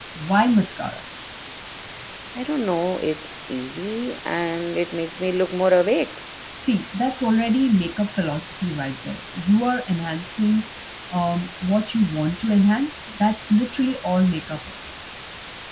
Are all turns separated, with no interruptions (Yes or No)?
Yes